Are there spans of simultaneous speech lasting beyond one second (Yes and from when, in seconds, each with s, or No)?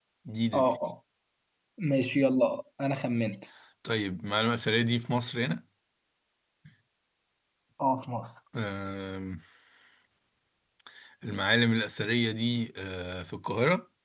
No